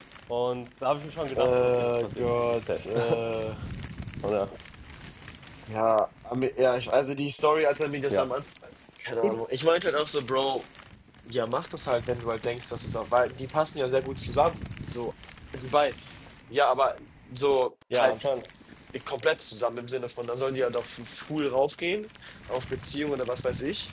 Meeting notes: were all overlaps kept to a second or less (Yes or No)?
No